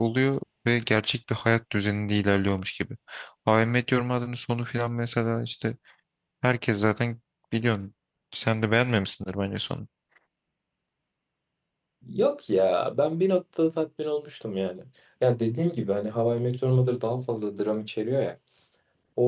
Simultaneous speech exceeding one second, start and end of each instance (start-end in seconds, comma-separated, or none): none